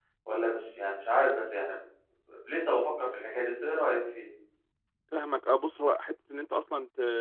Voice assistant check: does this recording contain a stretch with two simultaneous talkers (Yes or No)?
No